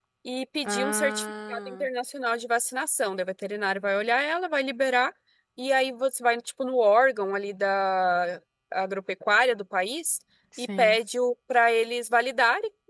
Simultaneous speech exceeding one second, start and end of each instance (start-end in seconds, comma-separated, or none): 0.6-1.9